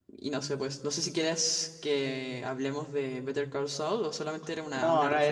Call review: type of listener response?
taking over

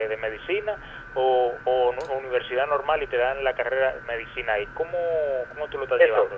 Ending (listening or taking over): taking over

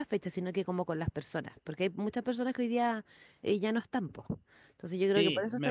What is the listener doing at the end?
taking over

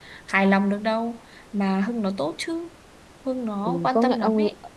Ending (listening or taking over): taking over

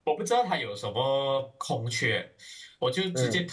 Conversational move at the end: listening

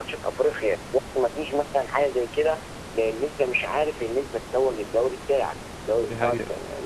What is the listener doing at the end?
listening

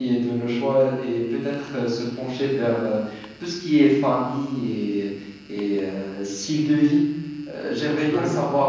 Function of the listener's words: listening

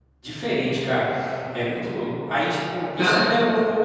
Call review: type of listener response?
listening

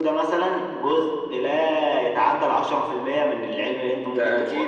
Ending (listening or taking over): taking over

